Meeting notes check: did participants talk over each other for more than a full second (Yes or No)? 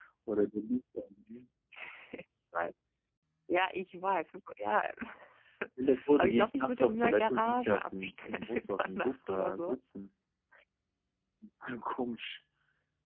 Yes